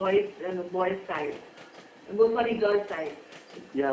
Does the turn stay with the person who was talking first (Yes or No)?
Yes